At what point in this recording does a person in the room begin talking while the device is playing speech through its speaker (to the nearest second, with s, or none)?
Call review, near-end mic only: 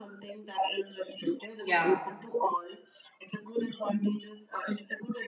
2 s